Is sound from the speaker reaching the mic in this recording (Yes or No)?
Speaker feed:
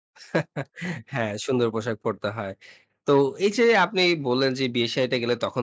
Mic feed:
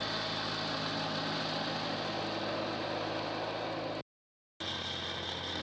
No